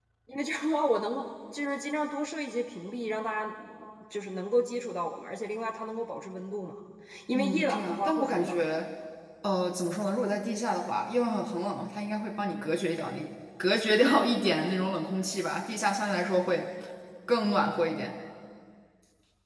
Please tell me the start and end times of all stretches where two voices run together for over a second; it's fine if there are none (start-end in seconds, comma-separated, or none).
7.3-8.6